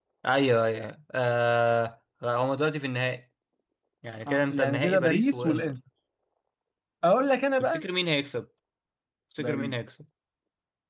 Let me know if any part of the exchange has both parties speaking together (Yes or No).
Yes